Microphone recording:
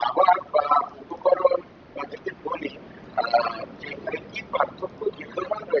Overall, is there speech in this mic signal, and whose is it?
echo only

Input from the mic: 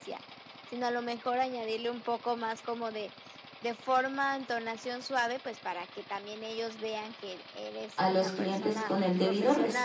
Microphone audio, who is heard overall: both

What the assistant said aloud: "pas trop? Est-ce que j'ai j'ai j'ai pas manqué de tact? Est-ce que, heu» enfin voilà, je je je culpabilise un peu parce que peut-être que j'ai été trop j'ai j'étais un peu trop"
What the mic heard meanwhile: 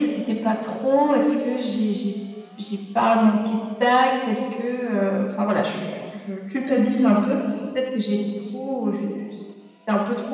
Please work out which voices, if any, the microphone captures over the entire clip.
echo only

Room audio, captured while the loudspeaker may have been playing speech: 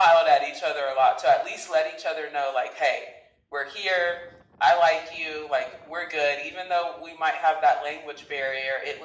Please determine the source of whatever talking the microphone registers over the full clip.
echo only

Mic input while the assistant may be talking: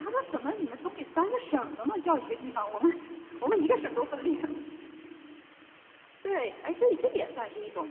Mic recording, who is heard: echo only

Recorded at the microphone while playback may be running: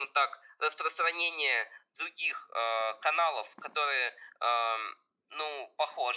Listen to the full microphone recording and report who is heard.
echo only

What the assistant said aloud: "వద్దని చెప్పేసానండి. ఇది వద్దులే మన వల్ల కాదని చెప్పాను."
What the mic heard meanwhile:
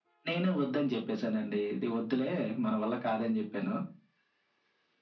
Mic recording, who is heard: echo only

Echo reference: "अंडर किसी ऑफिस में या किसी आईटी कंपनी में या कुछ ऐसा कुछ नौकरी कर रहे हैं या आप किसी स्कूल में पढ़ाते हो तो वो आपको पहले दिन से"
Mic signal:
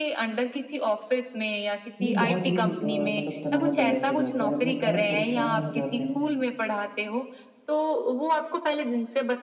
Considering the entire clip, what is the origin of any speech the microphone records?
both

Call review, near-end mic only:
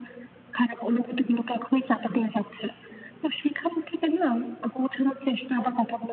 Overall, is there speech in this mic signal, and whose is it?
echo only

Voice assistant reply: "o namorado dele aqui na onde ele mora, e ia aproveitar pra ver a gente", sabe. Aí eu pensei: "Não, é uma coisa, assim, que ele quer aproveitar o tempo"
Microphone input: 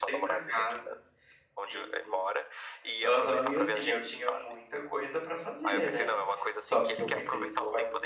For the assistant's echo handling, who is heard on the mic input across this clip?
both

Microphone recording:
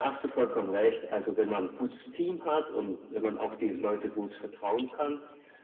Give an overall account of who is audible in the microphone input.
echo only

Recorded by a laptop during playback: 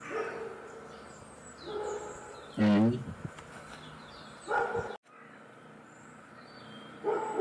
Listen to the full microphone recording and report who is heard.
user only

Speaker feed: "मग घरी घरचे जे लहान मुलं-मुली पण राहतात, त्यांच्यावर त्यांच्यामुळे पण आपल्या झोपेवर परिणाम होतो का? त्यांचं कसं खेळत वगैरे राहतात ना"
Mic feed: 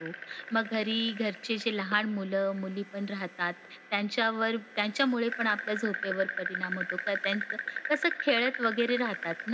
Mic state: echo only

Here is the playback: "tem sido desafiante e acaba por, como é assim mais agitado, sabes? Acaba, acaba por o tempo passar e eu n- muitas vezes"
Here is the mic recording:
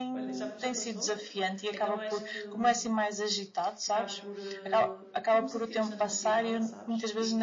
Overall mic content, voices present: both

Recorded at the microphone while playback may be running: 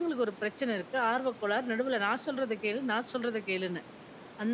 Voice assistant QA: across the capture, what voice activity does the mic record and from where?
user only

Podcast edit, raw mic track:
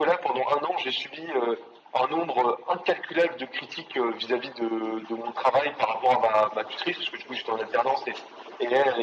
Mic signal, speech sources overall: echo only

